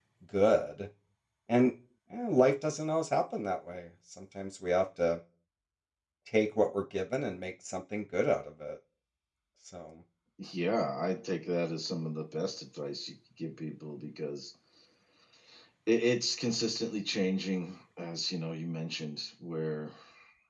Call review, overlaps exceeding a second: none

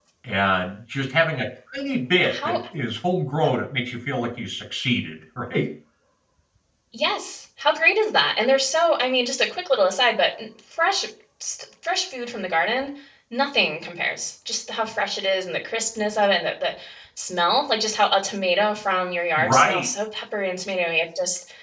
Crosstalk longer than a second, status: none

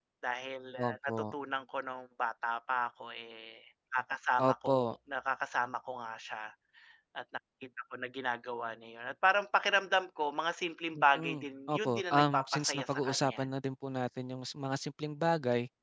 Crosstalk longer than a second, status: present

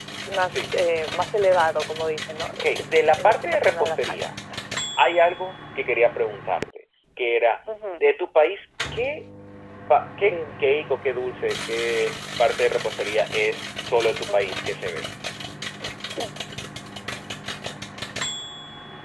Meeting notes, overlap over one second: present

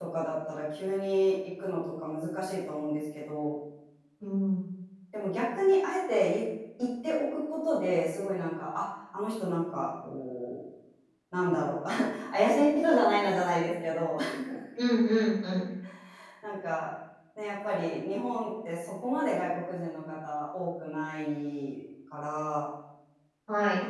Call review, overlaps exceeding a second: none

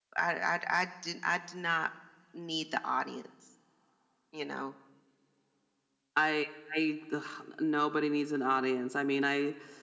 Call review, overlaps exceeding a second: none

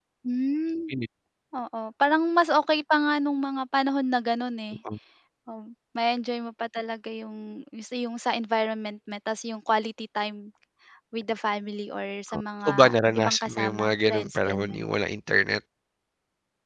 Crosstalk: present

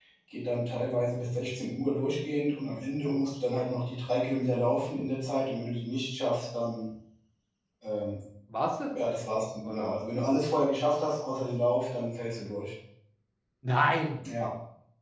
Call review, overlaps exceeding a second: none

